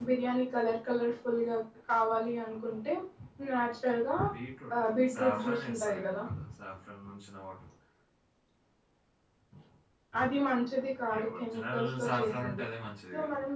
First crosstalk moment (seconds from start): 5 s

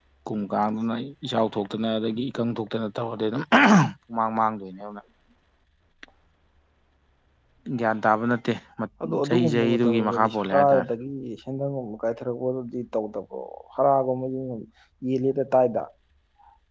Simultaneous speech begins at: 9 s

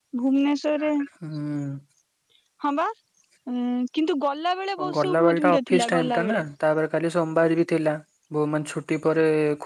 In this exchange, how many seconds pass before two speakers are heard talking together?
5 s

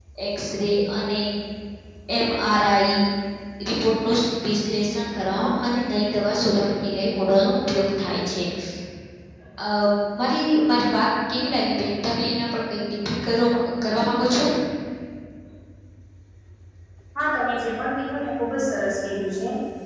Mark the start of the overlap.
none

